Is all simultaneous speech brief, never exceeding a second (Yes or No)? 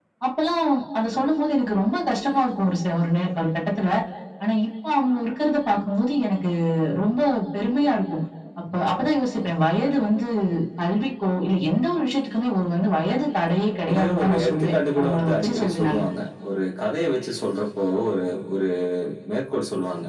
No